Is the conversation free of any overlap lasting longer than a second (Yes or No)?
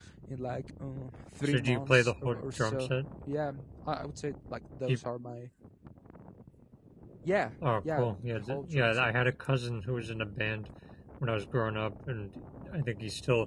No